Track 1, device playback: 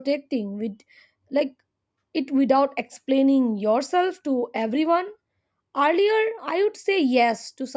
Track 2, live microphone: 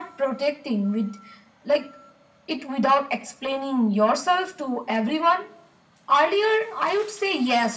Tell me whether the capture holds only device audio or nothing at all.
Yes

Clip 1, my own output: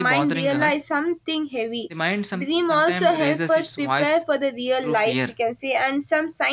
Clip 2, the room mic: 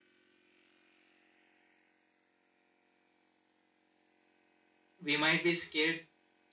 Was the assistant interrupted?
Yes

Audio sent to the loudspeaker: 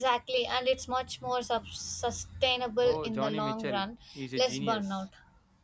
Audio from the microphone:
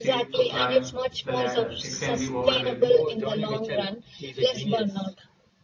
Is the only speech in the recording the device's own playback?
No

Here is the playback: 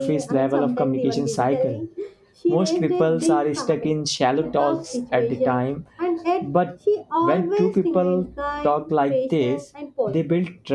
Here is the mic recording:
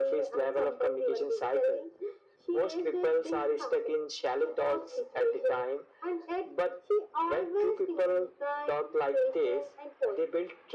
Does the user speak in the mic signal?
No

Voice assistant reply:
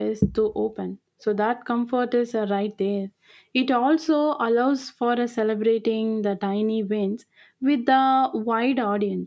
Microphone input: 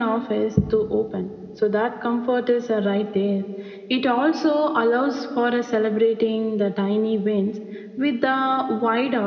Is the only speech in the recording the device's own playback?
Yes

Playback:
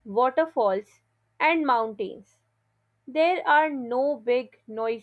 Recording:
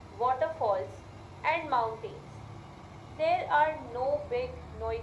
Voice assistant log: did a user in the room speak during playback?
No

